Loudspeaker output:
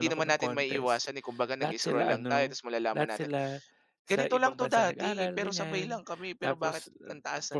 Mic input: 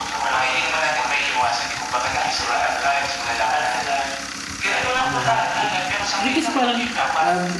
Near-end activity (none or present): present